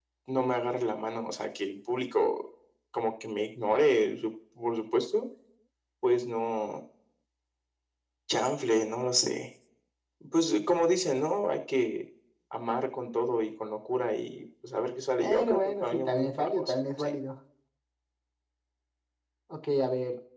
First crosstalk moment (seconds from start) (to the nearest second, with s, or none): 15 s